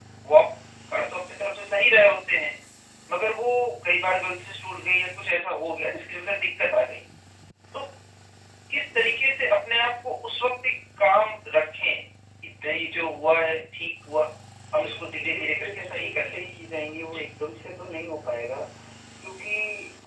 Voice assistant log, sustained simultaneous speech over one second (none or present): present